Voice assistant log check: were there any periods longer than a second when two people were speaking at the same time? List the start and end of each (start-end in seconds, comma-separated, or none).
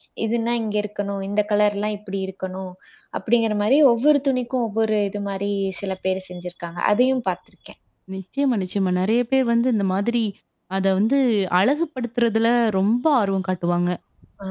none